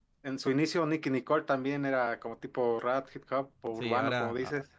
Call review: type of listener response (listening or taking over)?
taking over